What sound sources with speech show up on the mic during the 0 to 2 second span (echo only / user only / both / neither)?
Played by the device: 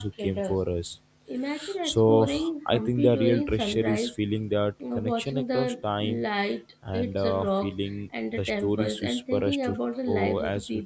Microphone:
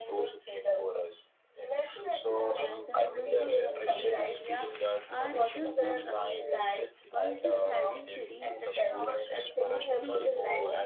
echo only